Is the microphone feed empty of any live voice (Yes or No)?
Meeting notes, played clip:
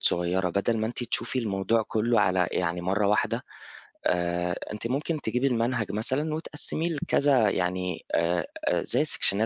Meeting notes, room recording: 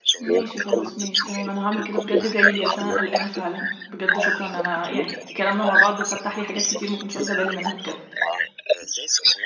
No